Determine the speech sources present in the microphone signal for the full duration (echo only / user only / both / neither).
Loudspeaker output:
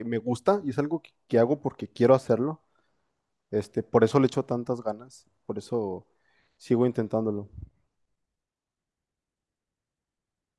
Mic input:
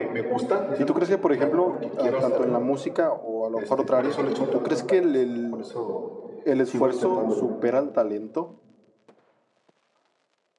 both